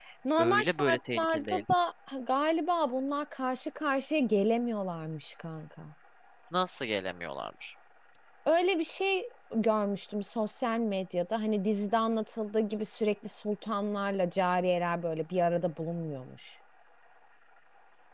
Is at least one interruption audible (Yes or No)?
Yes